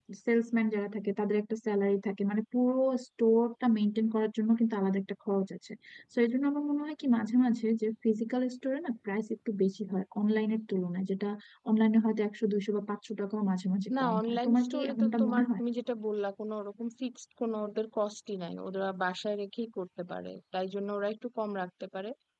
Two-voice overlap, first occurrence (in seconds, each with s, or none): 13.9 s